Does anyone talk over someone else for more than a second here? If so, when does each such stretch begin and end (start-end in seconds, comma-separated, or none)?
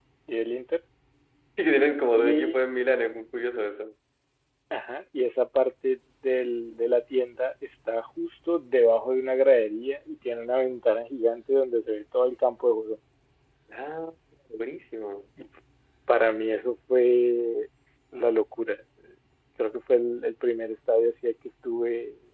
none